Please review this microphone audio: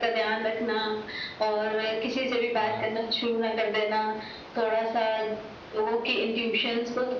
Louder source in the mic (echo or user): echo